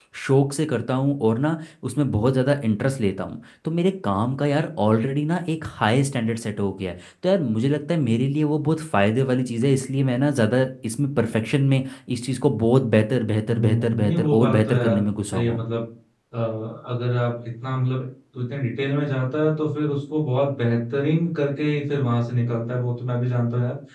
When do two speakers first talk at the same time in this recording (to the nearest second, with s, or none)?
13 s